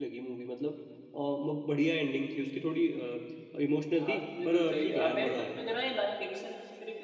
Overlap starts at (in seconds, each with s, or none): 4.0 s